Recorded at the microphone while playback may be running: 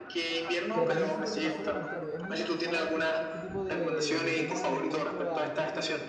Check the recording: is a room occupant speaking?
Yes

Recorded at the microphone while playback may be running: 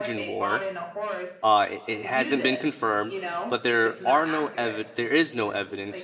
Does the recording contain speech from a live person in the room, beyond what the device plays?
Yes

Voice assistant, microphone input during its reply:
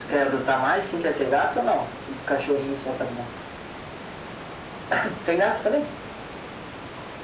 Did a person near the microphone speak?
No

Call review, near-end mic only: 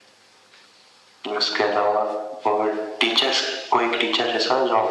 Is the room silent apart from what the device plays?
Yes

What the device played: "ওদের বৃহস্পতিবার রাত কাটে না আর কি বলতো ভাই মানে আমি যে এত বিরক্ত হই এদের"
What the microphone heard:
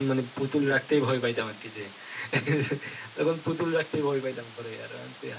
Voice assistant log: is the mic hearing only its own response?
No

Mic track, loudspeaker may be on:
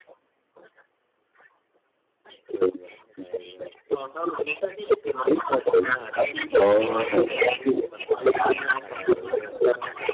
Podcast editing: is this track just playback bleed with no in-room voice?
No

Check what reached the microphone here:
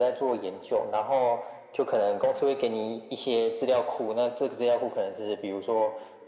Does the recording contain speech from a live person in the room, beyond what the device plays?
No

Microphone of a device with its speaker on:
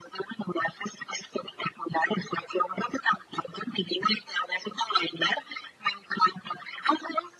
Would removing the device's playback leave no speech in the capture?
Yes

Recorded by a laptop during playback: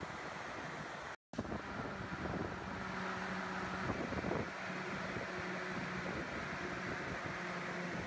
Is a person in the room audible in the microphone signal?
No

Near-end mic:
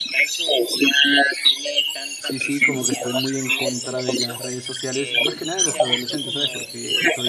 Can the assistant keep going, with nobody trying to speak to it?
No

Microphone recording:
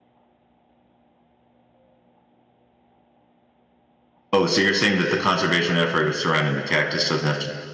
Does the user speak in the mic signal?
Yes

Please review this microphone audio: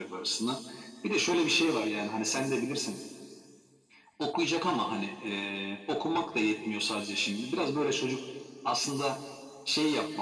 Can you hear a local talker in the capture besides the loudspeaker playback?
No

